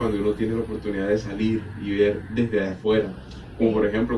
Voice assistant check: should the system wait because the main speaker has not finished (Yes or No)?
Yes